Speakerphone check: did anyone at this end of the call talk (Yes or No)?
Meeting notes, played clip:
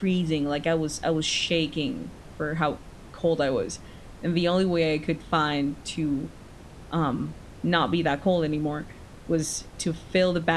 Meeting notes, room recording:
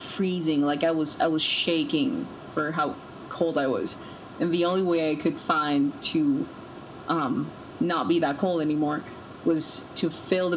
No